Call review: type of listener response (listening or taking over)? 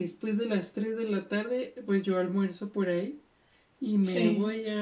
listening